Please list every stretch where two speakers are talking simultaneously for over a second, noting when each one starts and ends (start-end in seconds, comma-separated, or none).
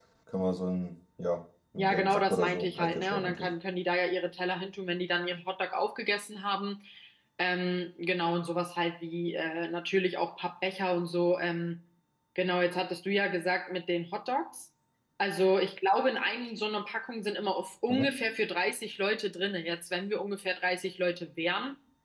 1.8-3.5